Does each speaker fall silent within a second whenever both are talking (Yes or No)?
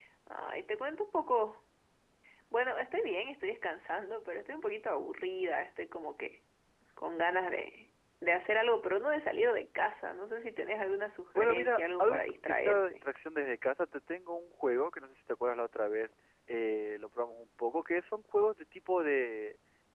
No